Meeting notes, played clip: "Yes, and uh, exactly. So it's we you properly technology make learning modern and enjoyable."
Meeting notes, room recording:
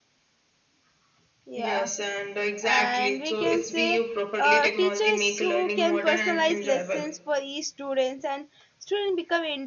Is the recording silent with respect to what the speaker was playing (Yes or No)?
No